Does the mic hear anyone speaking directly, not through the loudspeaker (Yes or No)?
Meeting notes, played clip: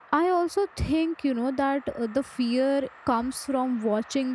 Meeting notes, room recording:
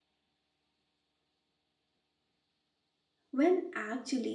Yes